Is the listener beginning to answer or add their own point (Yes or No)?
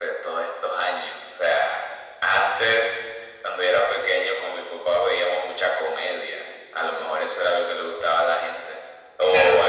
Yes